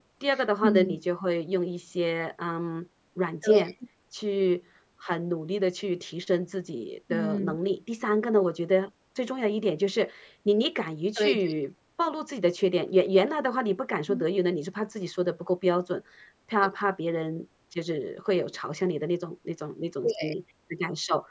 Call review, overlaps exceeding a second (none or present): none